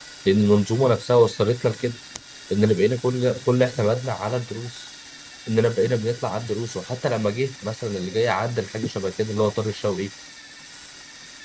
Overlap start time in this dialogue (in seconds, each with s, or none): none